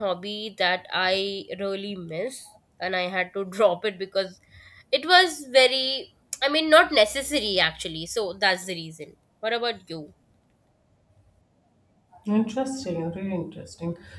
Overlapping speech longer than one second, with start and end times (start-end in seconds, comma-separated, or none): none